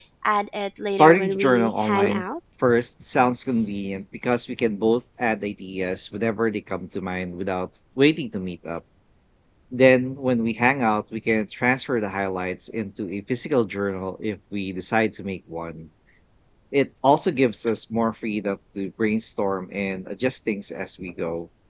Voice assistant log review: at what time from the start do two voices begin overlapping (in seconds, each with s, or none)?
0.9 s